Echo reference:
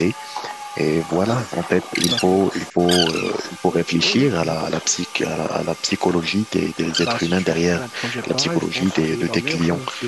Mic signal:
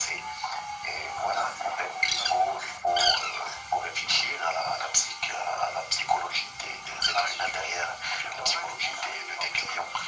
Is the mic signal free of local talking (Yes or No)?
Yes